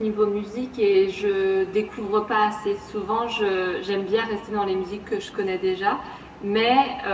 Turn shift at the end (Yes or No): No